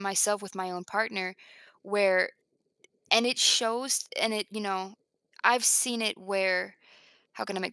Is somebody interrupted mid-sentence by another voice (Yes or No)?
No